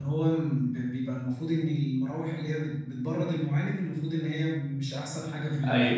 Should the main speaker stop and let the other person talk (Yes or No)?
Yes